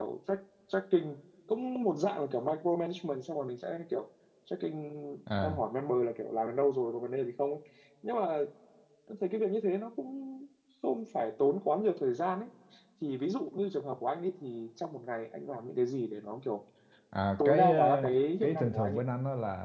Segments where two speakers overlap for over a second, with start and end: 17.4-19.0

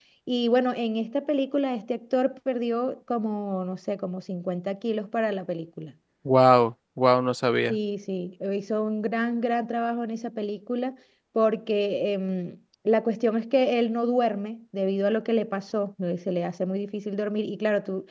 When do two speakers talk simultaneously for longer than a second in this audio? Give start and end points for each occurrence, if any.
none

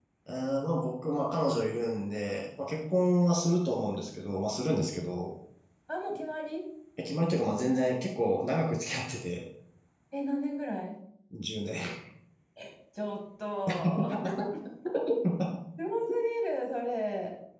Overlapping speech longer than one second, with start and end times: none

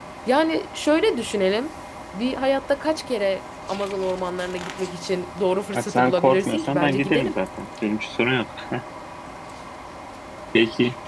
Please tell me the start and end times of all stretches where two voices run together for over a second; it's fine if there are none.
5.7-7.4

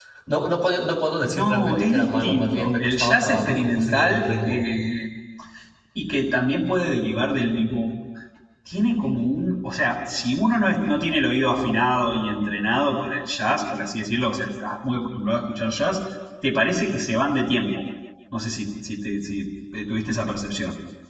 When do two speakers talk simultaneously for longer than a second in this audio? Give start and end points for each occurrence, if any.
1.2-4.6

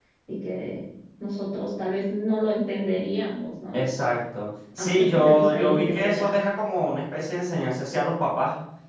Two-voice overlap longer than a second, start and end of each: 4.8-6.3

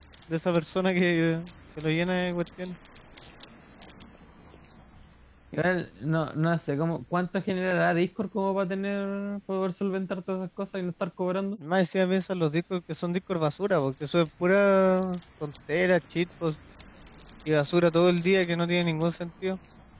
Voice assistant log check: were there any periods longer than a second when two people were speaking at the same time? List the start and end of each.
none

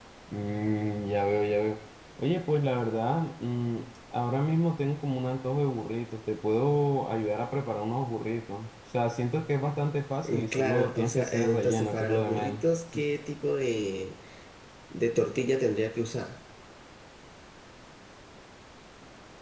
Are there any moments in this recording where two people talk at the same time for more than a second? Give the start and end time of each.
10.2-12.6

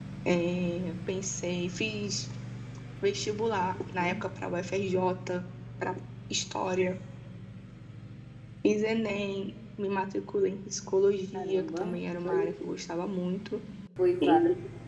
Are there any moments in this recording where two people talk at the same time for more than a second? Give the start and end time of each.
11.3-12.6

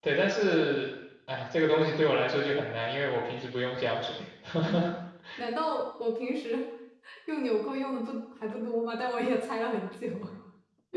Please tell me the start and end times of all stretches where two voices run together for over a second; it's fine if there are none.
none

